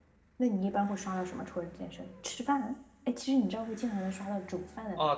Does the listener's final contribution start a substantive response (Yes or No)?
Yes